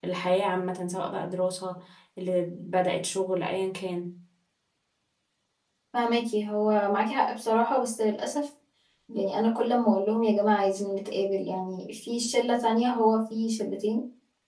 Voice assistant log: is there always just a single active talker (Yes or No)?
Yes